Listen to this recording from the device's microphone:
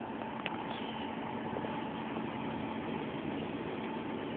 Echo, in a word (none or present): none